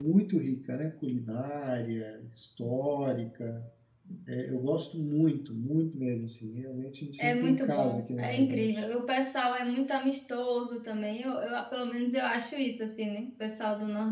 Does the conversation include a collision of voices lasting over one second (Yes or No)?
Yes